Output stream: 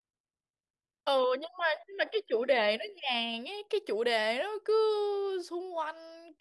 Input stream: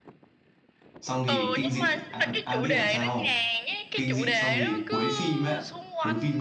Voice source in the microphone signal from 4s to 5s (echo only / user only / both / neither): both